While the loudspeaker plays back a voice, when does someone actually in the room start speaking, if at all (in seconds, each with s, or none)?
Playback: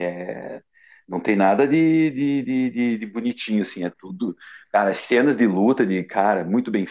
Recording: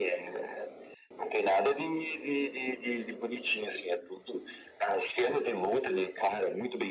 none